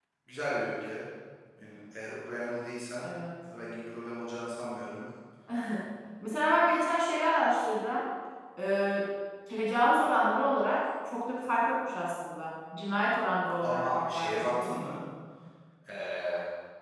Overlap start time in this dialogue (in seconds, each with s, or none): 13.6 s